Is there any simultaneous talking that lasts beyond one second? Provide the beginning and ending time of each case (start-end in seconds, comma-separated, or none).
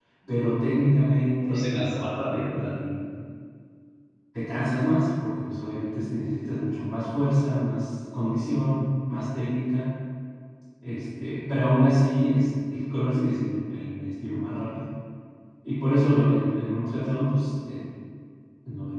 1.4-2.8